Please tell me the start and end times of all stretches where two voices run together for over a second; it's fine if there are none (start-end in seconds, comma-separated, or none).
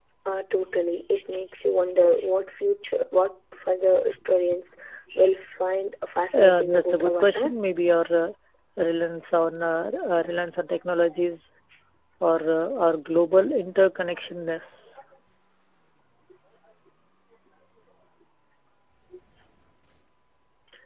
6.3-7.5